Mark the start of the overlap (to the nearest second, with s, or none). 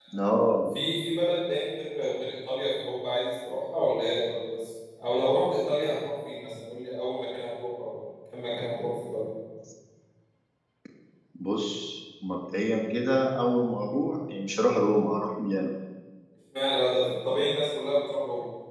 none